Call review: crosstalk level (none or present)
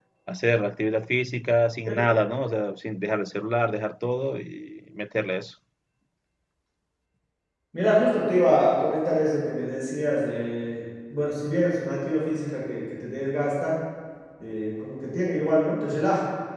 none